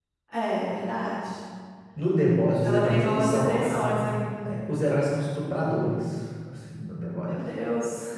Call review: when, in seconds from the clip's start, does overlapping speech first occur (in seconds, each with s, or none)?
2.6 s